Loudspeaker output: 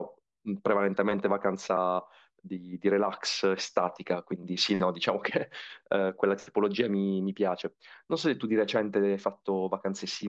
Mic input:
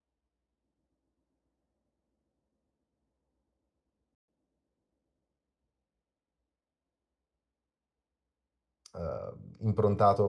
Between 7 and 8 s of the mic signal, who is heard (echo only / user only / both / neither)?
neither